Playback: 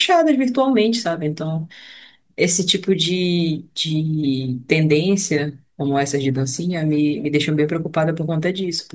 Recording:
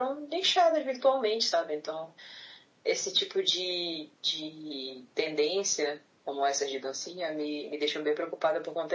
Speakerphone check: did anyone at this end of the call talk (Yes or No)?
No